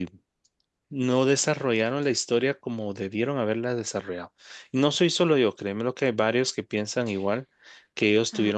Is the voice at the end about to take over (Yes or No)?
Yes